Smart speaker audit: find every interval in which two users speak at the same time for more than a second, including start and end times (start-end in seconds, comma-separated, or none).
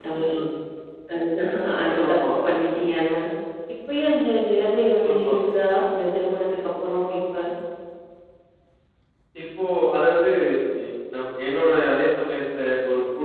none